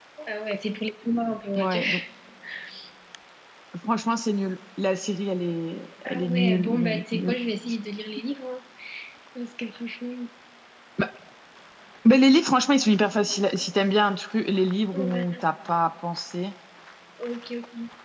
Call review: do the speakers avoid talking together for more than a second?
No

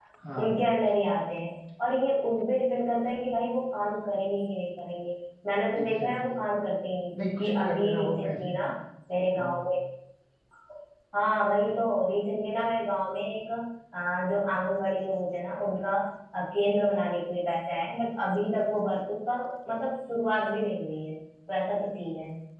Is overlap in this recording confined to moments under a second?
No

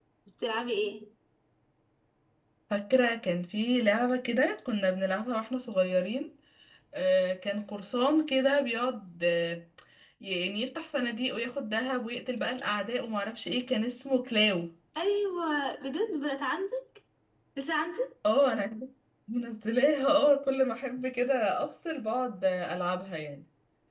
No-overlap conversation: Yes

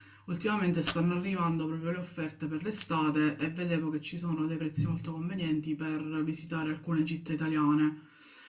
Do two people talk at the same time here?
No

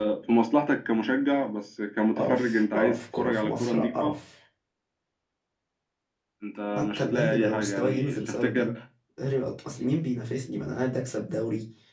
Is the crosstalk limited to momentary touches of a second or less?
No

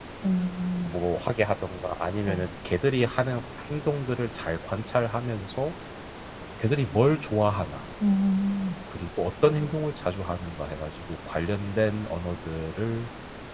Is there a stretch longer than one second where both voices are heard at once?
No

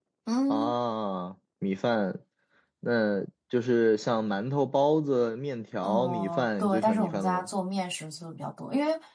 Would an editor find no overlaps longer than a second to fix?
No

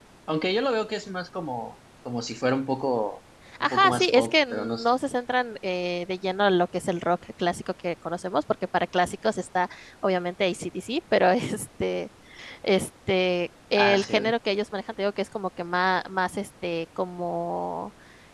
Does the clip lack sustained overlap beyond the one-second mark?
No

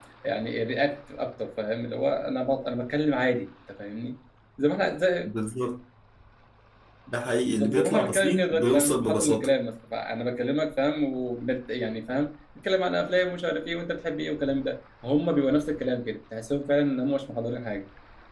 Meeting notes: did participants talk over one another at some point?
Yes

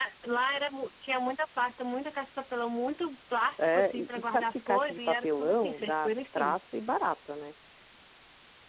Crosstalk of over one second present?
Yes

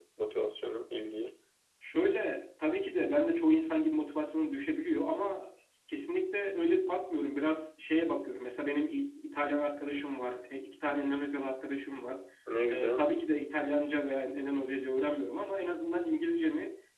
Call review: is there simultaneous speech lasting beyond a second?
No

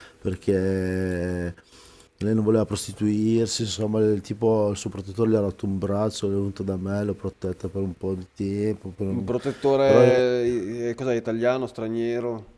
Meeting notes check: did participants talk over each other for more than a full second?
No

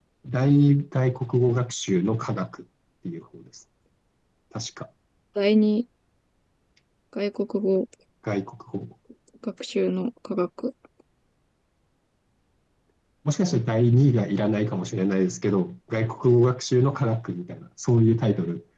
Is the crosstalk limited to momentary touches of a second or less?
Yes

